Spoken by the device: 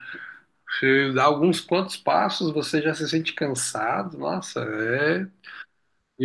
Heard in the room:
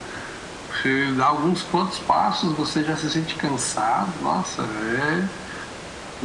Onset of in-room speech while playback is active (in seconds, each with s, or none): none